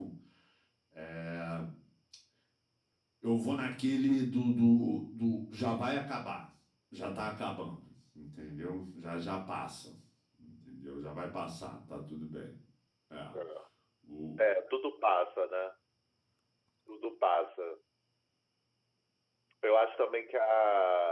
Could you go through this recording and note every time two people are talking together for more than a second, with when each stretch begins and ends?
none

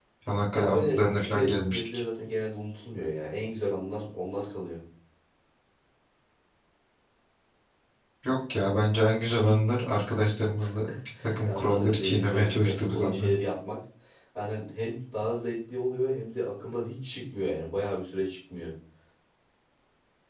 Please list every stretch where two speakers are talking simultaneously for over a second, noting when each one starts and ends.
0.6-1.9, 11.4-13.3

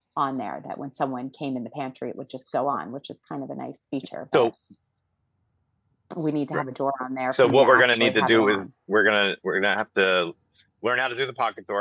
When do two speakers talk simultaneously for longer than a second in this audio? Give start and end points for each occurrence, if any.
7.3-8.6

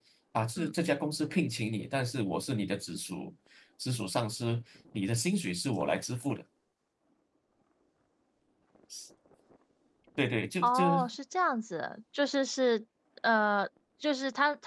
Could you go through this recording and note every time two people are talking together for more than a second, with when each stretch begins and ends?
none

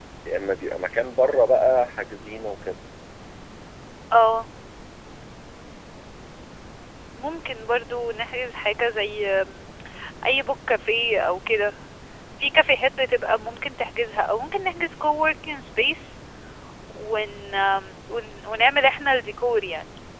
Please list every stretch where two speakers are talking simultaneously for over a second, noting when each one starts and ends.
none

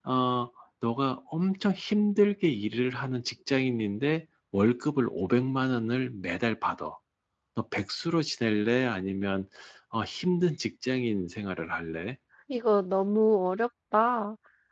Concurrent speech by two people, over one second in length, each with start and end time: none

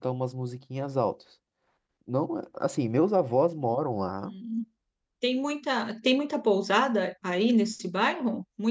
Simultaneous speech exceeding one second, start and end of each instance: none

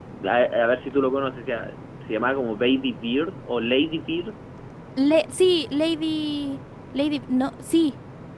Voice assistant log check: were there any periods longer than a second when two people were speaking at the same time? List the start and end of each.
none

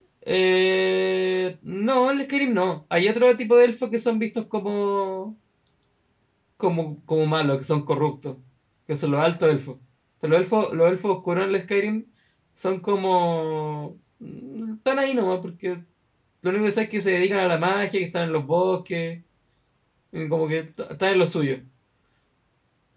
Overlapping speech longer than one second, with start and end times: none

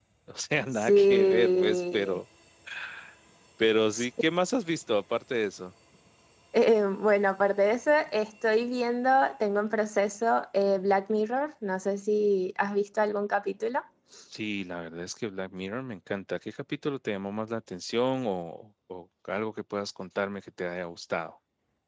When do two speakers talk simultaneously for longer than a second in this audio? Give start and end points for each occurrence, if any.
0.7-2.2

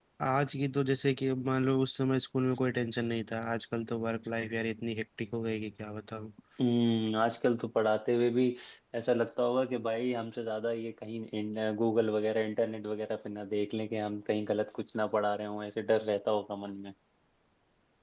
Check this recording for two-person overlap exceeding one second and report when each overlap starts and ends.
none

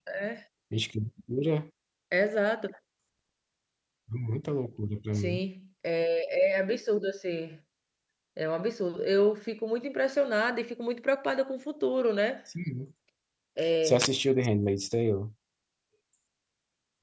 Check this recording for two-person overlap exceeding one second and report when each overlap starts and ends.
none

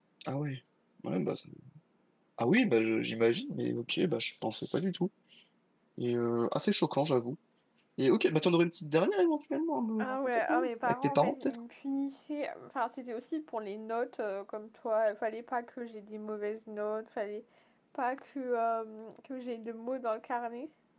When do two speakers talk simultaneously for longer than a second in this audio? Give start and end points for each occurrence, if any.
10.0-11.6

